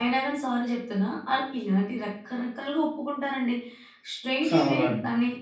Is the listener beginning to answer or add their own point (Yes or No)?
No